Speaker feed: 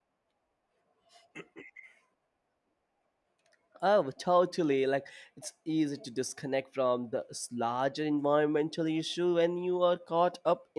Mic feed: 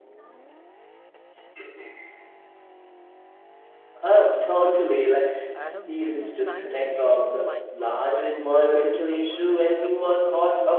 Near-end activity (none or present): present